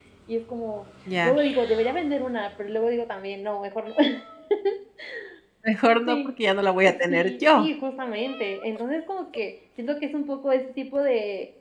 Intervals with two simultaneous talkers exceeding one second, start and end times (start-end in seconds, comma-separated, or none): none